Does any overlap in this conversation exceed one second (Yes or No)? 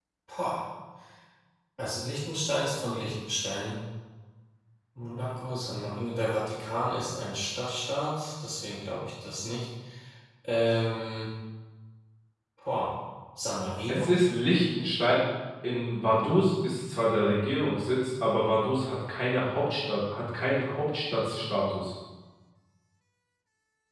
No